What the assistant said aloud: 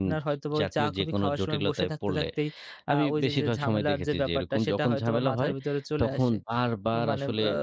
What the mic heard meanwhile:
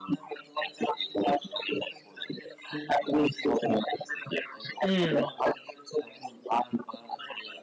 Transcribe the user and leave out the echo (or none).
উমম।